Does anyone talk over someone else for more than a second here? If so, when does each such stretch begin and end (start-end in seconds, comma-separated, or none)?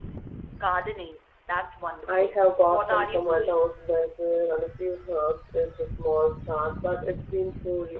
2.1-3.7